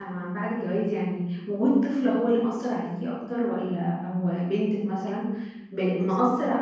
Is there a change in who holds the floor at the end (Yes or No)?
No